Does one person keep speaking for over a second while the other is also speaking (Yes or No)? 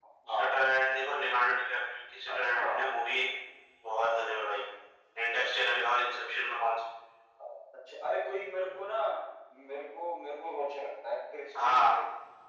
No